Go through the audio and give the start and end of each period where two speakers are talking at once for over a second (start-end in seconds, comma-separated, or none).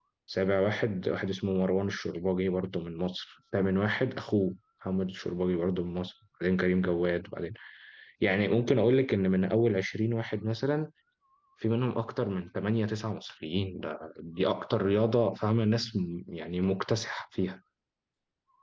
none